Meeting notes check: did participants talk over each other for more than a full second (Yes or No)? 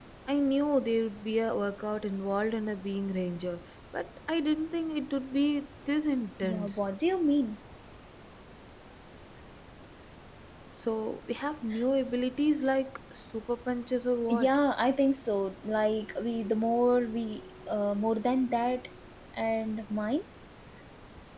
No